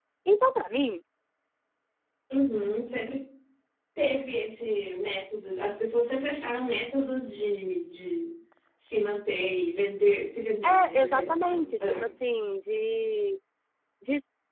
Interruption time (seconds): 10.6 s

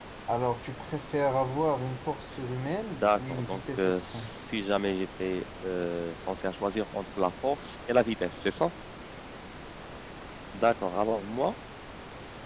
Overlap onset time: 2.9 s

